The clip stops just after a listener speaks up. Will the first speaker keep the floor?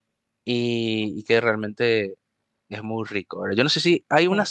Yes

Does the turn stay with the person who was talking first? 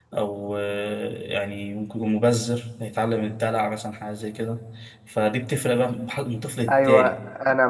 No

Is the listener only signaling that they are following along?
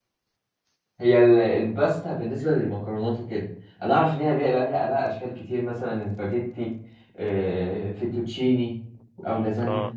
Yes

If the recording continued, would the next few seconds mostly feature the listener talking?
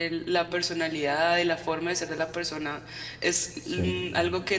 No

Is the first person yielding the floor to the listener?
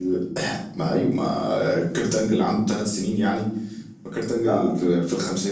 No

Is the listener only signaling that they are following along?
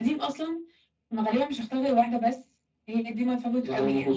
No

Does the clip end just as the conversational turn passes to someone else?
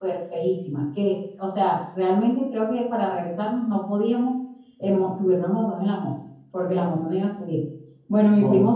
No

